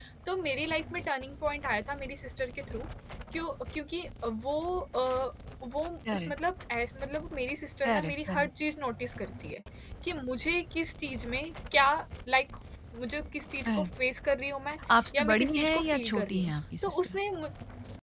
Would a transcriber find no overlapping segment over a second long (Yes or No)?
No